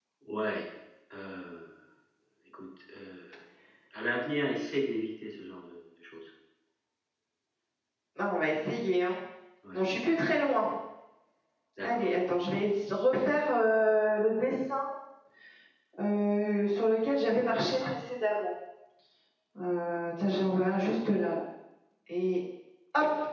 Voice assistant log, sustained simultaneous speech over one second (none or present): none